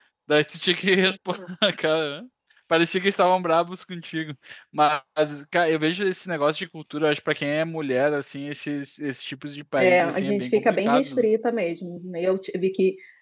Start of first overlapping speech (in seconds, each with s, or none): 9.8 s